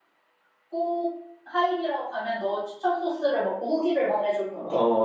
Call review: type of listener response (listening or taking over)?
taking over